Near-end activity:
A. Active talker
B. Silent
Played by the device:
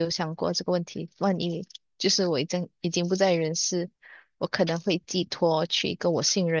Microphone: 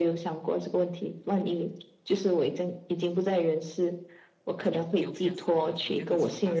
A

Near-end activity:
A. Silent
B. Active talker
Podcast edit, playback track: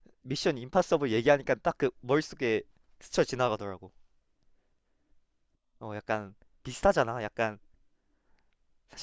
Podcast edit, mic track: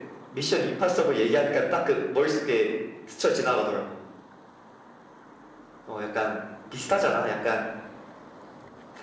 A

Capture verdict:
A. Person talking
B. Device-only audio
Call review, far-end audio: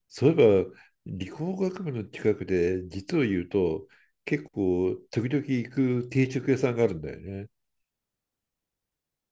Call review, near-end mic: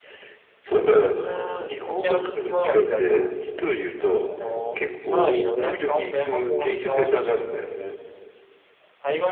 A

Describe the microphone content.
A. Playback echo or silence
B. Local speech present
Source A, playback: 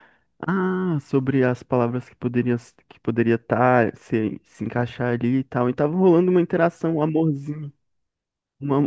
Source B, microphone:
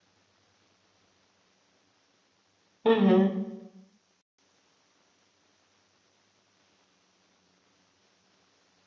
B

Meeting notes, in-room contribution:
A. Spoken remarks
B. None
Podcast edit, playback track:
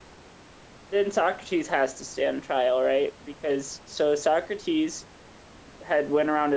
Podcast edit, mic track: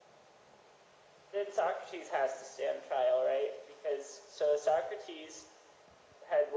B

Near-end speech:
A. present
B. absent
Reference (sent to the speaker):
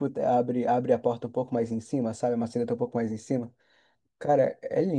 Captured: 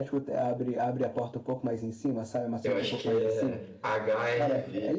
A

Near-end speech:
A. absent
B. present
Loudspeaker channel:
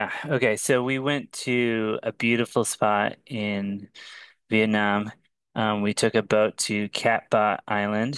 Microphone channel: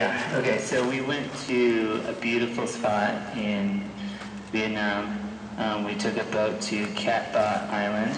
A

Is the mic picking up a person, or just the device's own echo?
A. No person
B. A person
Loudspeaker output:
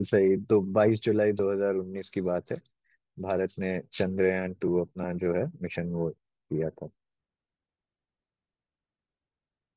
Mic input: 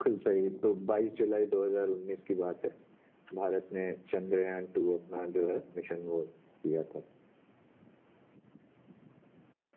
A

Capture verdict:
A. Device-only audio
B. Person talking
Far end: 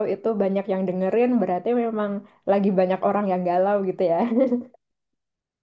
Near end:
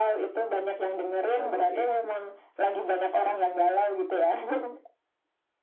B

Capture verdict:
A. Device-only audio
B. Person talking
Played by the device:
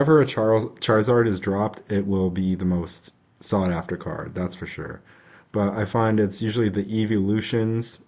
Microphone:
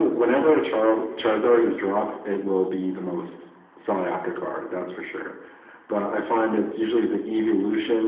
A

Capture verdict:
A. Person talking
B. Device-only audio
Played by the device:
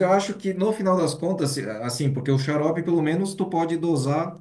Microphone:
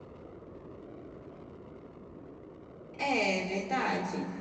A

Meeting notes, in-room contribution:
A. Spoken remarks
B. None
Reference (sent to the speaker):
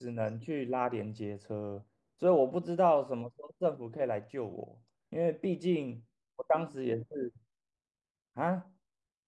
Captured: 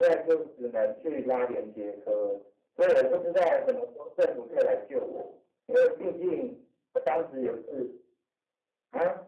B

